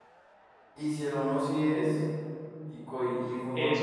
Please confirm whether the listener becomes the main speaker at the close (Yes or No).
Yes